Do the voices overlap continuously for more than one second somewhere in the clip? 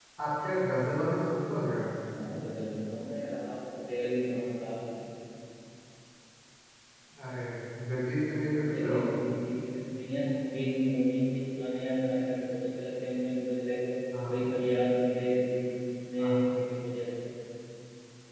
No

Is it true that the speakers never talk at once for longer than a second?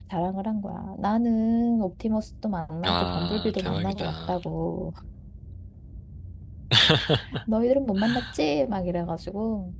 No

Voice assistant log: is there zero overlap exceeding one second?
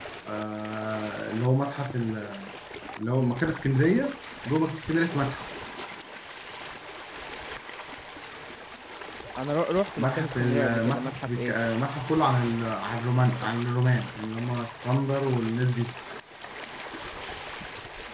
No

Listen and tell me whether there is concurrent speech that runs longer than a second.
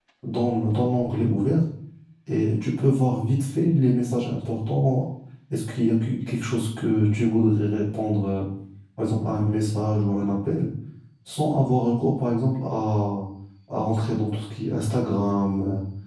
No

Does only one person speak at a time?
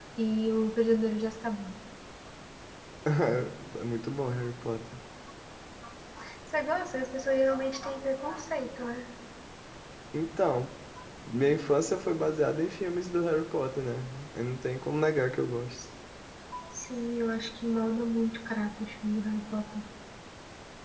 Yes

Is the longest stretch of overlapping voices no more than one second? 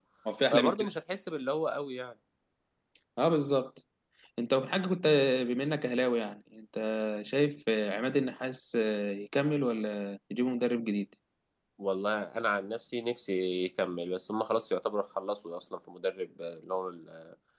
Yes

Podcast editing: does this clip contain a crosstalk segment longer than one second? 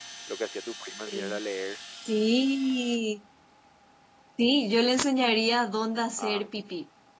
No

